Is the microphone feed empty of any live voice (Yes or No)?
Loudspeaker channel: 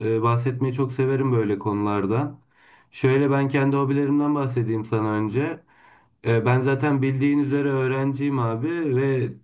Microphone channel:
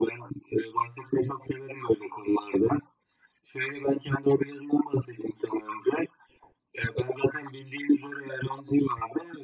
Yes